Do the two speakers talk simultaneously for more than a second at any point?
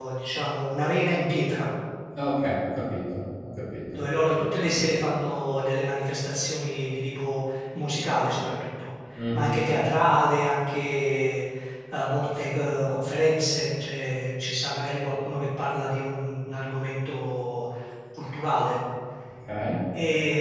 No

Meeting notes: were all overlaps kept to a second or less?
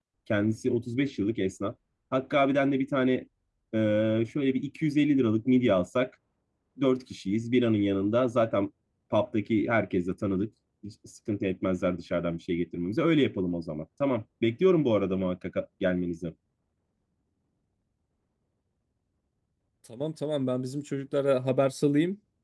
Yes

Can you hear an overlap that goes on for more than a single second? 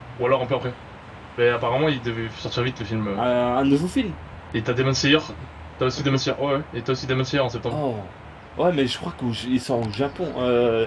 No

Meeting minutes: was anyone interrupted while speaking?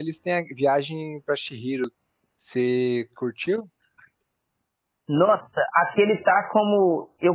No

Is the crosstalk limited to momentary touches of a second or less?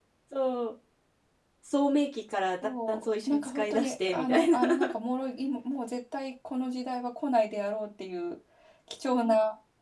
No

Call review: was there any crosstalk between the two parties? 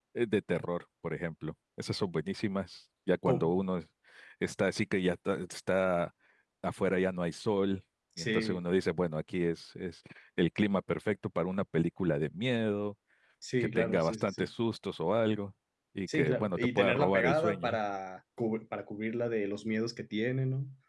Yes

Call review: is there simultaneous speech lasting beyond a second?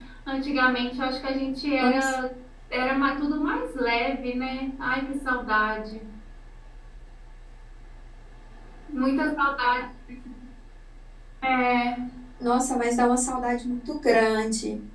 No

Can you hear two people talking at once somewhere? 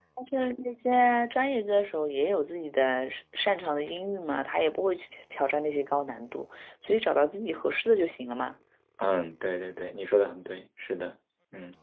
No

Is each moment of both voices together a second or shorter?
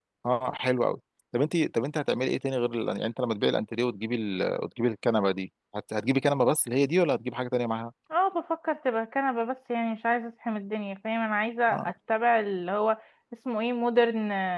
Yes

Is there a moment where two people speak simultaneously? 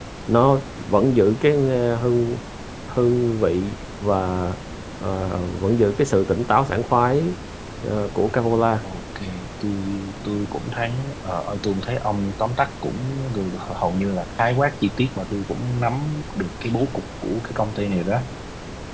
No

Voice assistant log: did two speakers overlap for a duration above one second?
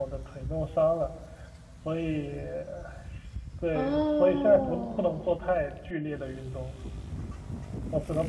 Yes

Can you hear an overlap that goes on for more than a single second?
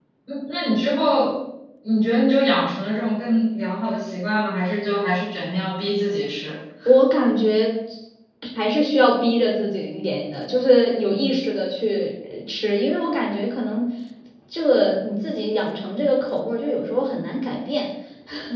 No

